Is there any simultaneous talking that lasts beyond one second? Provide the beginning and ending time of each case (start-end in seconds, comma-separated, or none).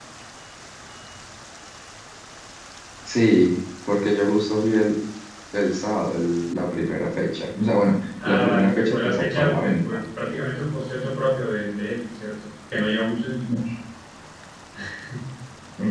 8.2-10.0